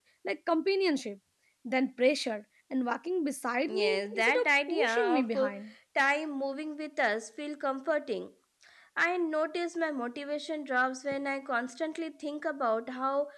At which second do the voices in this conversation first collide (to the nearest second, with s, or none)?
4 s